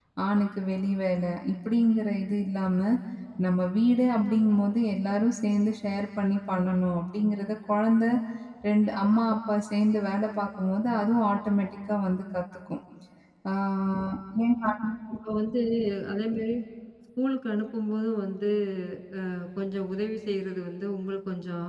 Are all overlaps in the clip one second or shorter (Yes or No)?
Yes